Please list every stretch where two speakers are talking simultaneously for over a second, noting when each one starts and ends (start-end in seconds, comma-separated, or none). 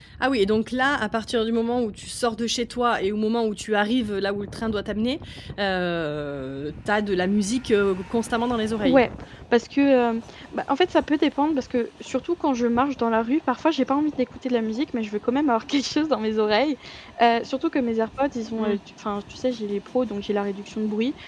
none